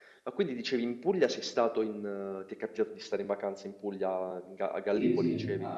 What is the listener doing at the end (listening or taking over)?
taking over